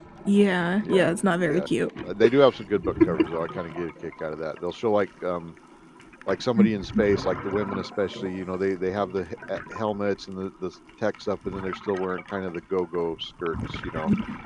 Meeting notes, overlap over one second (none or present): none